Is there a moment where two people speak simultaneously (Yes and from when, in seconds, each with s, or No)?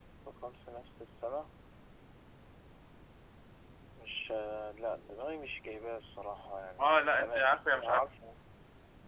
Yes, from 6.8 s